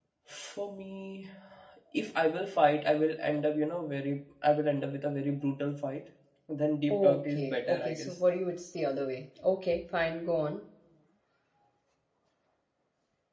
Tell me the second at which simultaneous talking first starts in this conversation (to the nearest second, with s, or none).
7 s